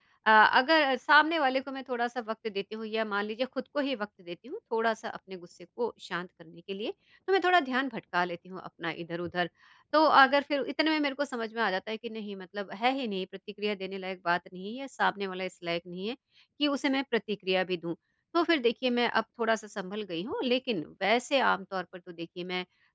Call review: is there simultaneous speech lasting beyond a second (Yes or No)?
No